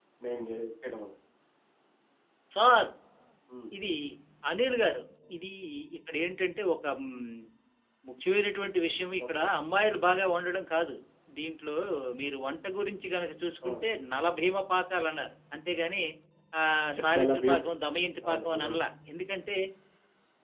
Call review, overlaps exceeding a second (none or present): none